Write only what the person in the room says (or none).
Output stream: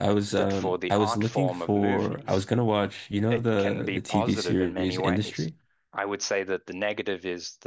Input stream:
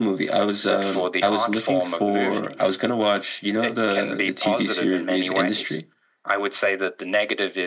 none